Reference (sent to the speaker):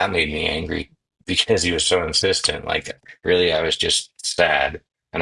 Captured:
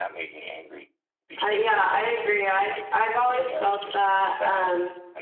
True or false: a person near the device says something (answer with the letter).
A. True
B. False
A